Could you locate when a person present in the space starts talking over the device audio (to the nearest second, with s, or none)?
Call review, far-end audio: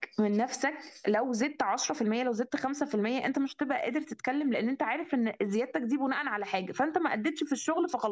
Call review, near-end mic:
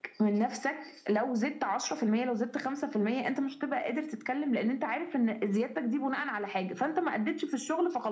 none